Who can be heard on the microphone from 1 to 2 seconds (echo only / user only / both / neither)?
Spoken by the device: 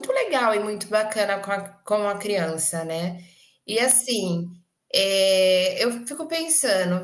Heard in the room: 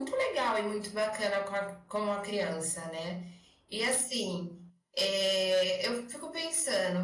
echo only